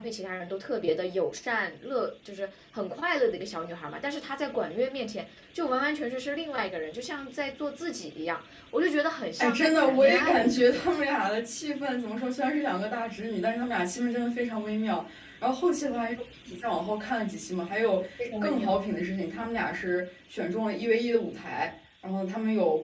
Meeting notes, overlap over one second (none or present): present